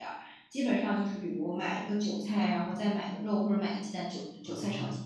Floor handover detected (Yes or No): No